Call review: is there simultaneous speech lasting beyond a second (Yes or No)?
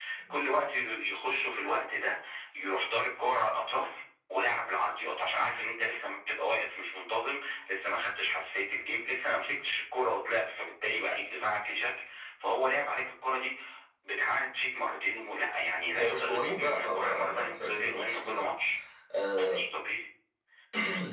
Yes